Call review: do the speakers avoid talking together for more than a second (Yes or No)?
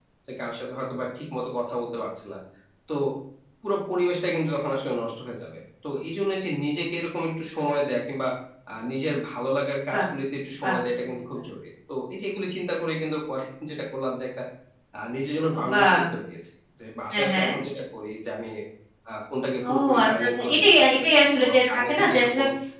No